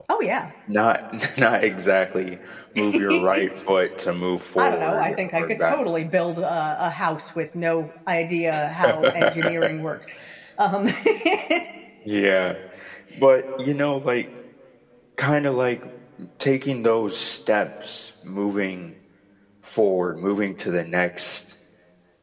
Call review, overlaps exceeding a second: present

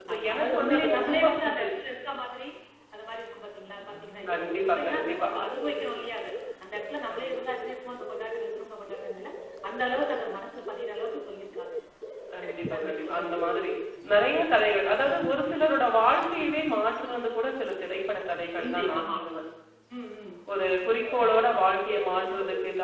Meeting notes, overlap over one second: present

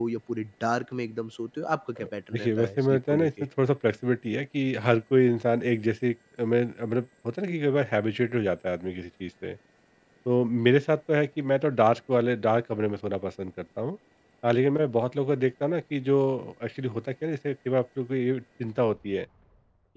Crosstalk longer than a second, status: present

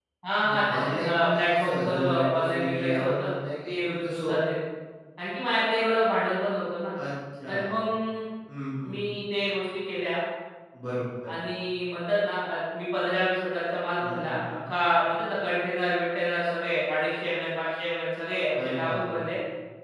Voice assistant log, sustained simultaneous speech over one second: present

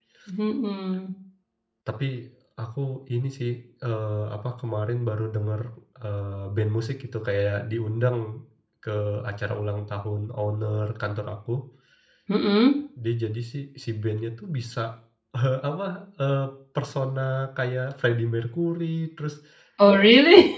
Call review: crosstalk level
none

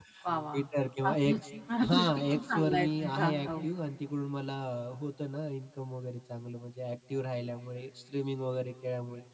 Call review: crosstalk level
present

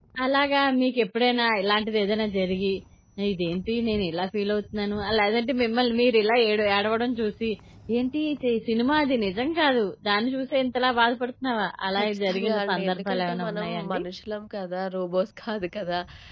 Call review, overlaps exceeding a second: present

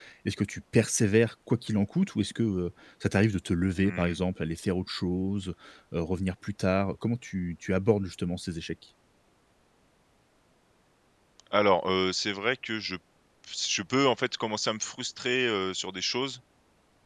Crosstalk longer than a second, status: none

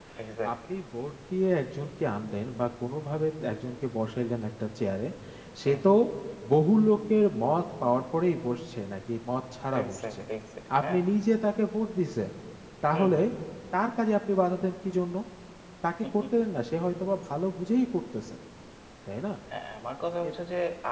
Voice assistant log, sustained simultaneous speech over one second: none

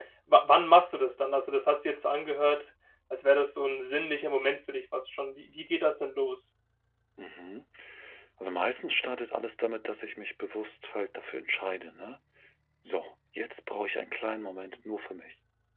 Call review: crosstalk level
none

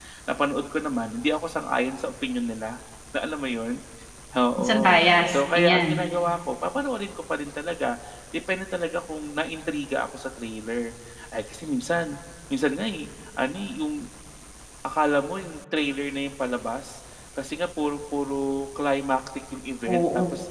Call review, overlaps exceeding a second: present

